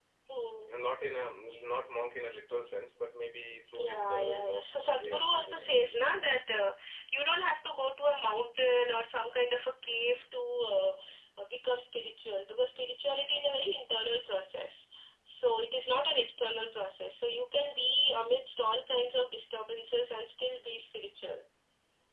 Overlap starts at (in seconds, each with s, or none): 3.8 s